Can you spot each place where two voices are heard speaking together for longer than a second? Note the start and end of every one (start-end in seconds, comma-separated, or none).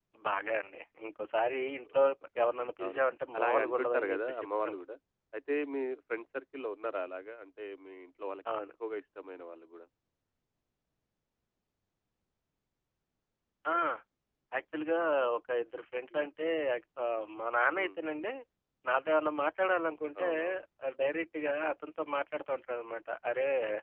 3.4-4.8